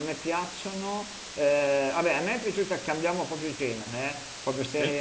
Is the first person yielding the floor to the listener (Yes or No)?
No